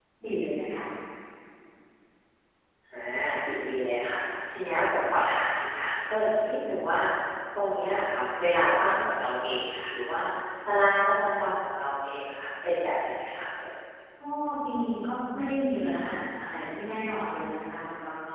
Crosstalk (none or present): none